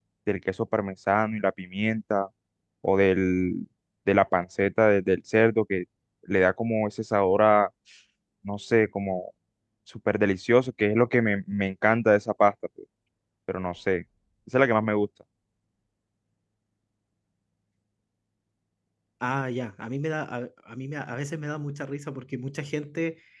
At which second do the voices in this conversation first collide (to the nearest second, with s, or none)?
none